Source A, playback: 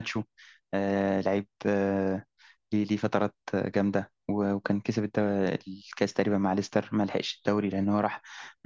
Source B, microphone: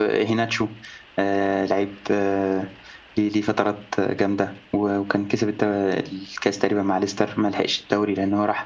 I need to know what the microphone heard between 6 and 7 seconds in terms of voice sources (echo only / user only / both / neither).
echo only